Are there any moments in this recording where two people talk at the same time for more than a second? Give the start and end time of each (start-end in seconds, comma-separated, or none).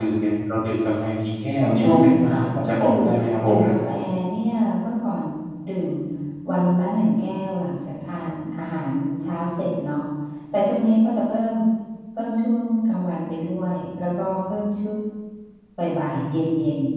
1.6-2.9